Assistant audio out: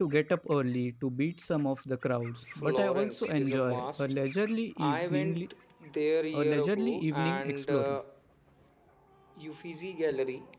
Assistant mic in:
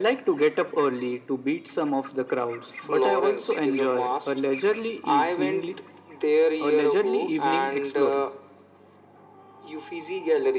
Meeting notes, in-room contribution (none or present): none